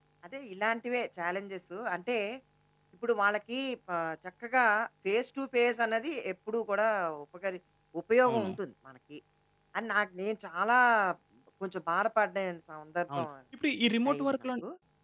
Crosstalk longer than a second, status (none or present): none